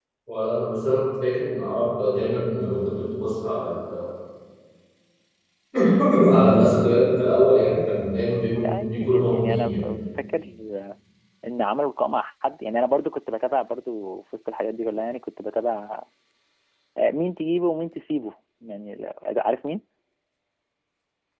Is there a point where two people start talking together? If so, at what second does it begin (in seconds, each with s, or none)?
8.4 s